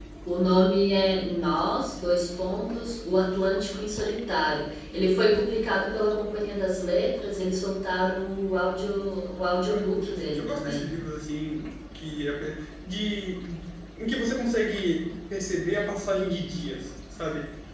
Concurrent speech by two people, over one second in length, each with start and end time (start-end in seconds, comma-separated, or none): 9.7-10.9